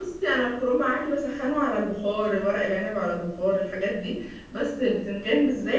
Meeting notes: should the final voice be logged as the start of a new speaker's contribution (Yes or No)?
No